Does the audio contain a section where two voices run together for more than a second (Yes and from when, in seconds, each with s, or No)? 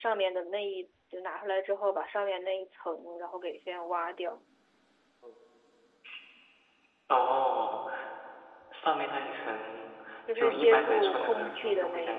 Yes, from 10.3 s